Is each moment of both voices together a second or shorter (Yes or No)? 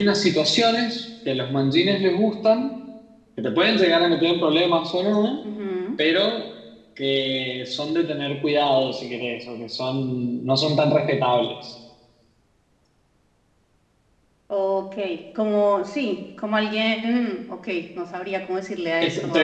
Yes